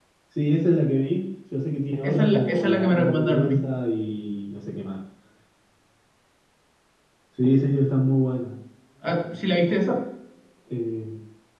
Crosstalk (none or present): present